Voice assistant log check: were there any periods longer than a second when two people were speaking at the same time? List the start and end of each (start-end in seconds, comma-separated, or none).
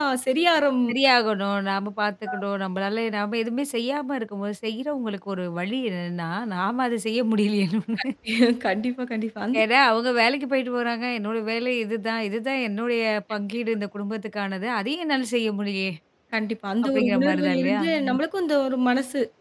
16.8-18.2